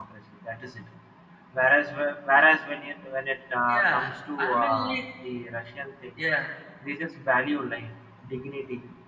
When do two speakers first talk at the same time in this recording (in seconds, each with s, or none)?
3.7 s